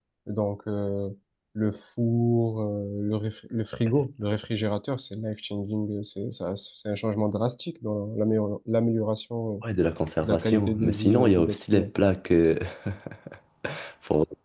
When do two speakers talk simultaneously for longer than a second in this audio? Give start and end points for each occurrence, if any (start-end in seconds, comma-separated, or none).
10.2-11.9